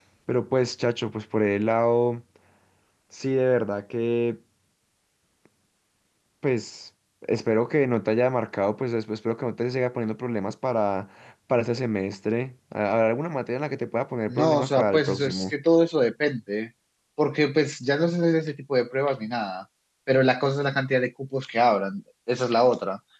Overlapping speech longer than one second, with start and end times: 14.3-15.5

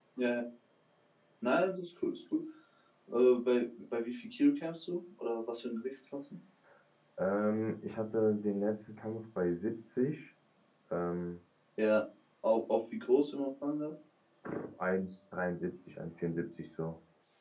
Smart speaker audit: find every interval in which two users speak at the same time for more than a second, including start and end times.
none

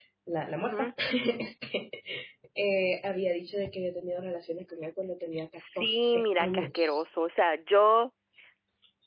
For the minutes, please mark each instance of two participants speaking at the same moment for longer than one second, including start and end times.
5.8-7.0

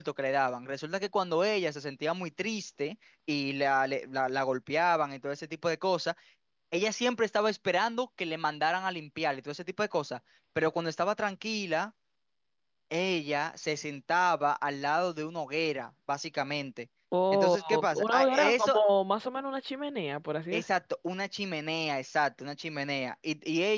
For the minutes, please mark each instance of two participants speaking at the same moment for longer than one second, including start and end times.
17.3-18.8

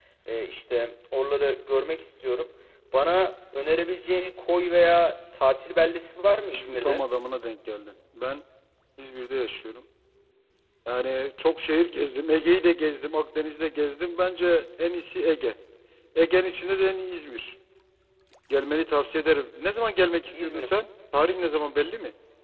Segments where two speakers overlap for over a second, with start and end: none

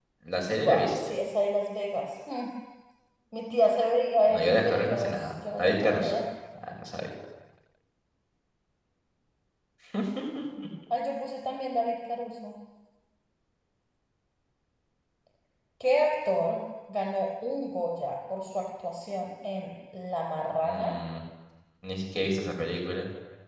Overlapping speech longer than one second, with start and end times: 4.3-6.1

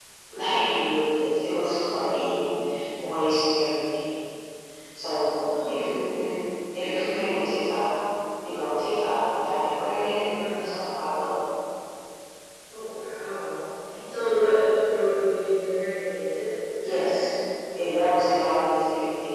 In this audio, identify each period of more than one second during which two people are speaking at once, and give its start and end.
none

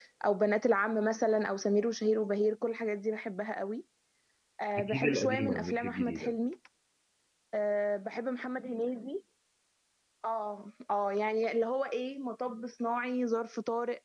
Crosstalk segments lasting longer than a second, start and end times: 4.8-6.3

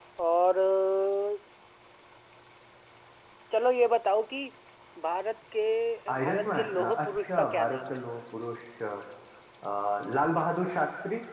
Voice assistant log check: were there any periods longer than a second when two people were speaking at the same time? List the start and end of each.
6.2-8.0

